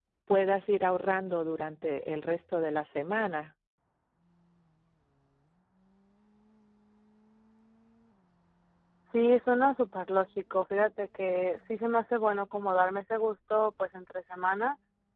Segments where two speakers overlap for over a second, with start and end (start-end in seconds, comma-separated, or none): none